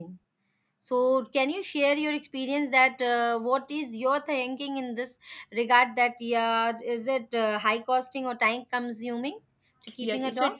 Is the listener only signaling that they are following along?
No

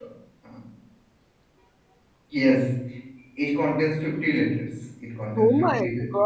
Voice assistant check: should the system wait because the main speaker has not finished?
No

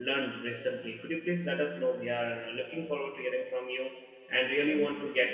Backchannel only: Yes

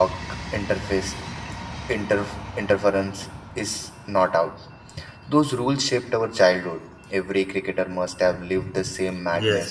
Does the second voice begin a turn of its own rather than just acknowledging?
Yes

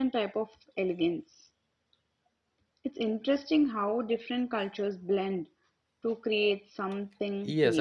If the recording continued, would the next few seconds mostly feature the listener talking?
Yes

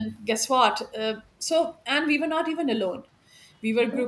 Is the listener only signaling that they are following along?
Yes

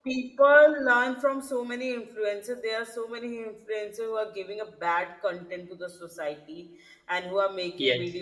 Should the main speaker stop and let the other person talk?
No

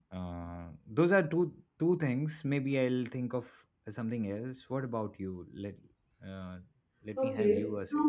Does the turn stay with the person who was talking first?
No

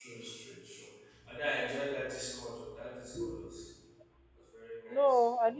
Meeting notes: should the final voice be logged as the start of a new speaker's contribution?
Yes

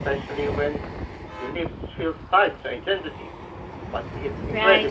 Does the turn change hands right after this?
Yes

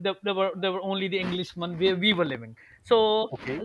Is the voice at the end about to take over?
No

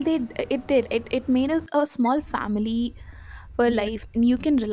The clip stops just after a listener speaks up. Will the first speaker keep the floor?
Yes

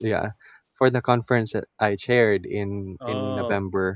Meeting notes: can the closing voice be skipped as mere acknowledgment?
Yes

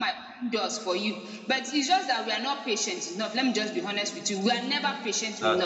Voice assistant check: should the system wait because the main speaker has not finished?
Yes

